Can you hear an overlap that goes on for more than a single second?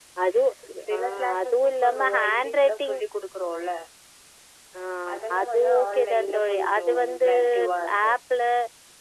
Yes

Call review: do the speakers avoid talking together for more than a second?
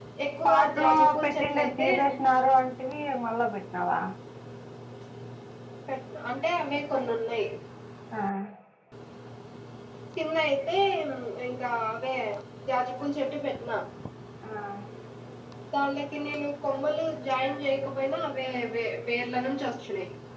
No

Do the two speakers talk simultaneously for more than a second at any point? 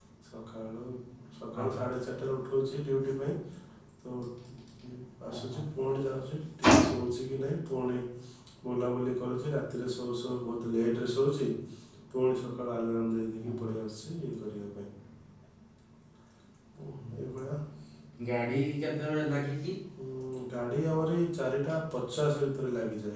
No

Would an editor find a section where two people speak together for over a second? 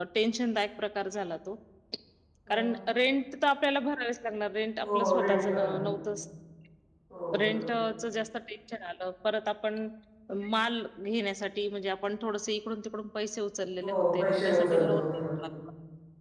Yes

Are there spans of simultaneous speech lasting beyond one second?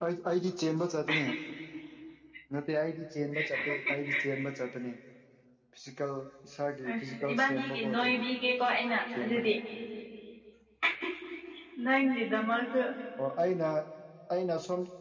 Yes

